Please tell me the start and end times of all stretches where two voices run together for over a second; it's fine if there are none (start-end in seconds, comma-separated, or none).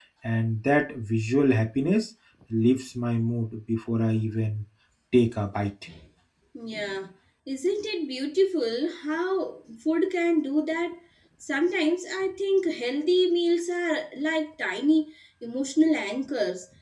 none